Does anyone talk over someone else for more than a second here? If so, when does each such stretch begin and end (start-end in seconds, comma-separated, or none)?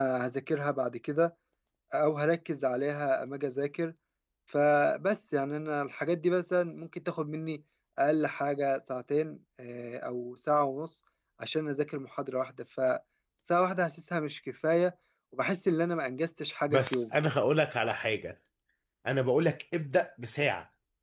none